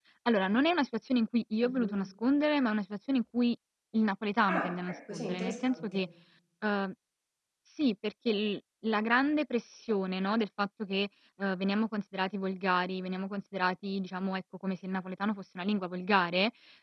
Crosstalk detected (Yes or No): Yes